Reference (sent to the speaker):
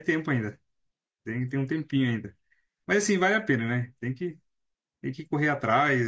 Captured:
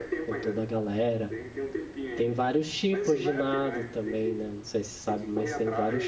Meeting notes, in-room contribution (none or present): present